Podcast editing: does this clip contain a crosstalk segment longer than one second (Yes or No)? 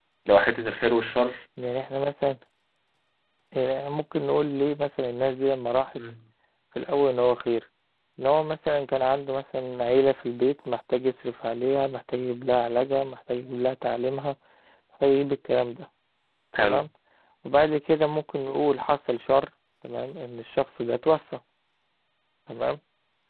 No